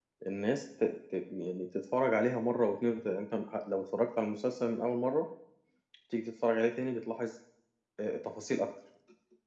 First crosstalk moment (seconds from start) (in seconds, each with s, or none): none